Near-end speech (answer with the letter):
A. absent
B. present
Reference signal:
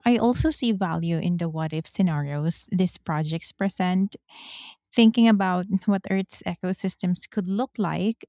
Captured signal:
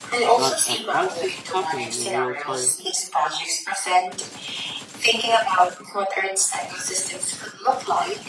B